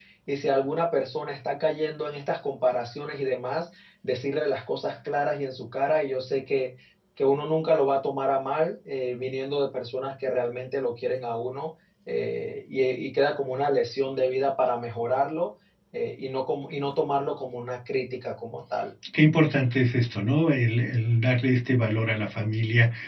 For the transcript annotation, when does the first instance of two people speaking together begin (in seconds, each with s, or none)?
none